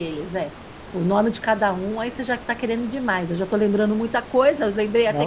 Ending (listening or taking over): taking over